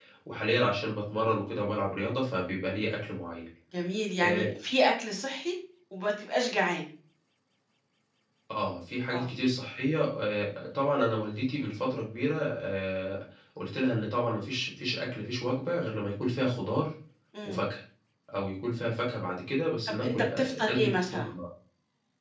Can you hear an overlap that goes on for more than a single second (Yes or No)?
Yes